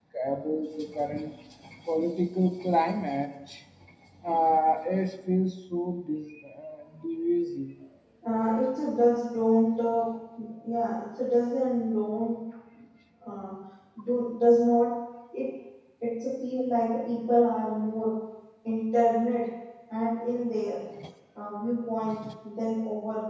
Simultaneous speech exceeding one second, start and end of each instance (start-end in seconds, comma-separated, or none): none